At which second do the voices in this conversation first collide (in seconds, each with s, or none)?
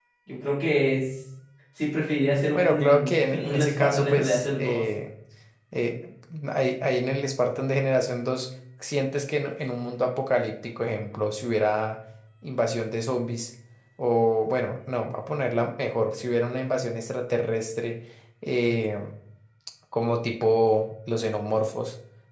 2.5 s